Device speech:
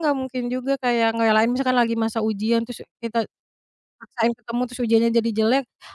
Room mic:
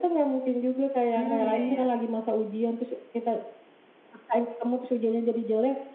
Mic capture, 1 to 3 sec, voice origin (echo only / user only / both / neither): both